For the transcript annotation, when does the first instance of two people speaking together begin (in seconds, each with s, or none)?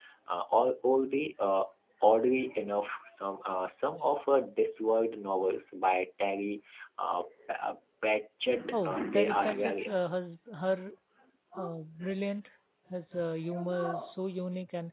8.7 s